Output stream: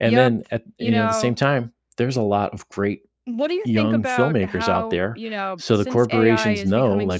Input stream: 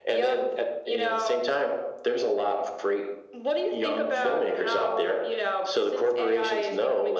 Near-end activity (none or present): none